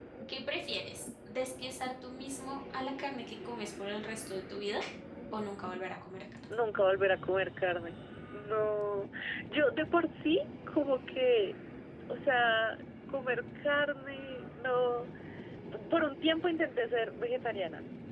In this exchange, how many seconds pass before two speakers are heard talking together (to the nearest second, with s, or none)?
none